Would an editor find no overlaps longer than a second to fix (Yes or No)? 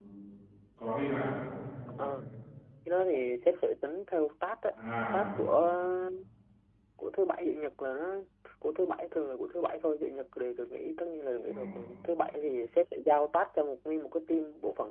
Yes